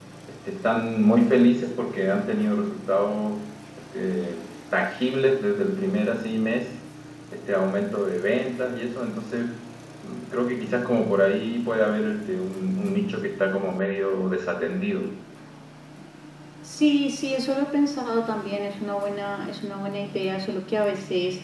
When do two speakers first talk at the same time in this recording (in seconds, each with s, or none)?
none